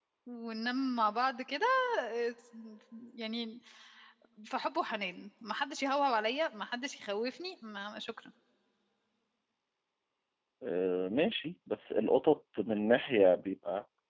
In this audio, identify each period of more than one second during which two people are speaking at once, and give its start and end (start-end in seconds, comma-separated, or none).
none